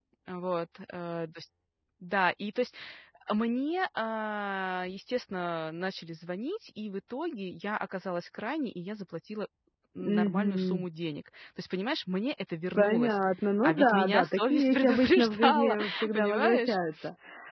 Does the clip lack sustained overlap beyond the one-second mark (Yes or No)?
No